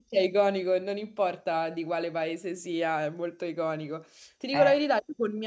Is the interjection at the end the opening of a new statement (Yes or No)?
No